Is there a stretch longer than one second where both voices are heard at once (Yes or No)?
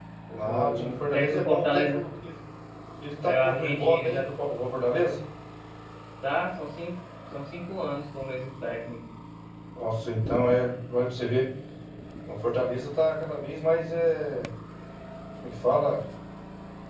Yes